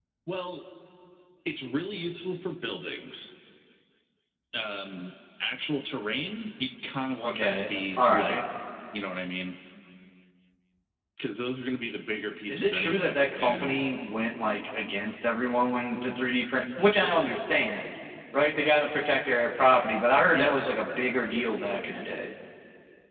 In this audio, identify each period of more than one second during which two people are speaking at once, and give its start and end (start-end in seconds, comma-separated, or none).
7.2-8.4, 12.5-13.8